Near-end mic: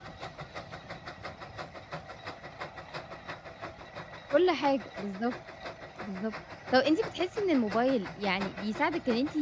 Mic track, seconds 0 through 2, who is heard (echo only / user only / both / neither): neither